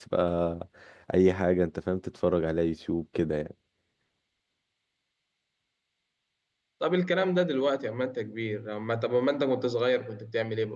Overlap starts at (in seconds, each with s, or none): none